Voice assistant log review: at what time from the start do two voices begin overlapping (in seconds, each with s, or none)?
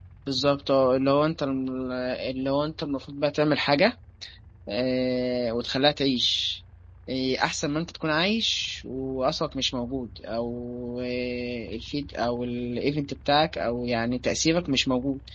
none